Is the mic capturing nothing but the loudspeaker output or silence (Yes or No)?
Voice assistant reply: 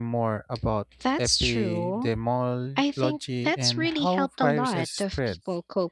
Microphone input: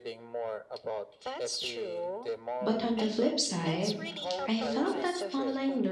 No